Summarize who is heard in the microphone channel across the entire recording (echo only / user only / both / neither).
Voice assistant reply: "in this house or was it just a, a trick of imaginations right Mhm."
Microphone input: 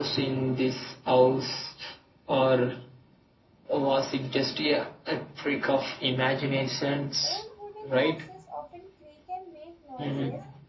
both